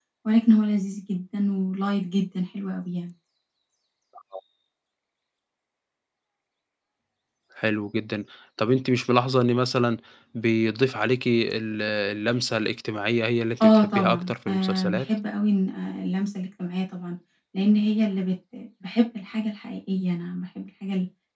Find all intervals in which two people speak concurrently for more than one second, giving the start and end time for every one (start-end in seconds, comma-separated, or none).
13.6-15.1